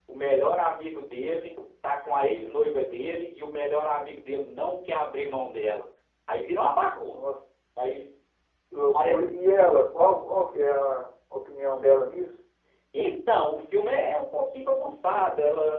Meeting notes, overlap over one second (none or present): none